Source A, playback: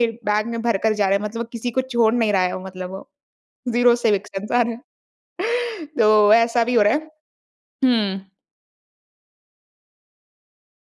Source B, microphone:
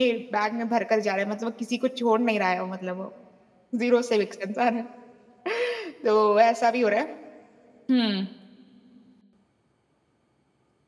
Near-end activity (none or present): none